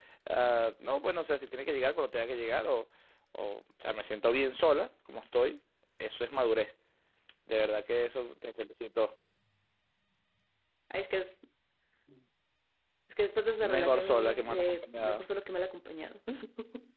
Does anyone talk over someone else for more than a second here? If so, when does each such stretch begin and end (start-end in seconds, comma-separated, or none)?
13.6-15.2